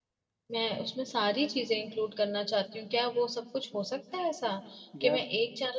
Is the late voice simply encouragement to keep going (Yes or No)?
Yes